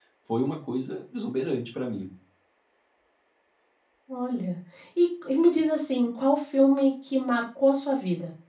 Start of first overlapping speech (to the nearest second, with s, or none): none